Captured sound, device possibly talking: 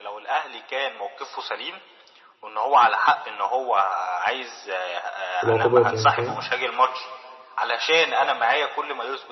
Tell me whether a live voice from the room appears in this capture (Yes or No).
Yes